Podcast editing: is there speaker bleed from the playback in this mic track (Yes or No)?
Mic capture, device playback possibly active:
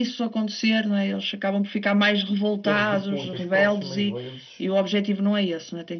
Yes